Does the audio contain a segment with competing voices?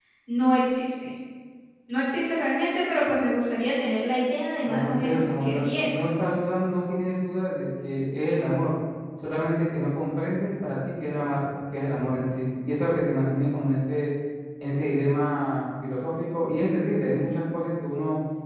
Yes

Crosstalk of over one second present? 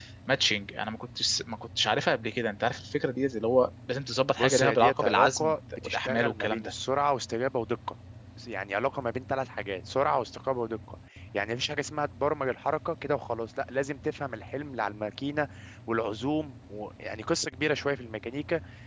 Yes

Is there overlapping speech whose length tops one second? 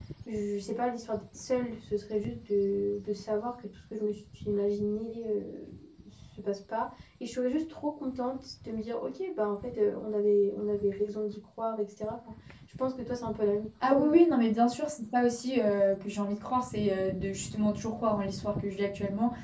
No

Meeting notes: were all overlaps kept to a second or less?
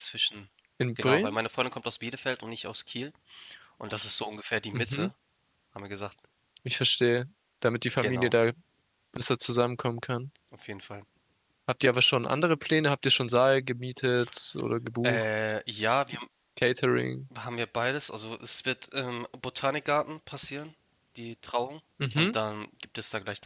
Yes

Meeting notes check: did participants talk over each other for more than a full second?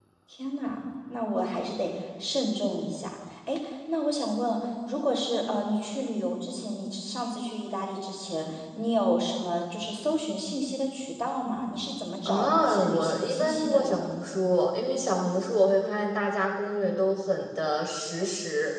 Yes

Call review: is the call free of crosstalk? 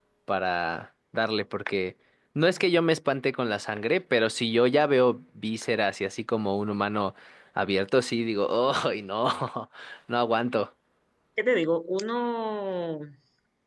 Yes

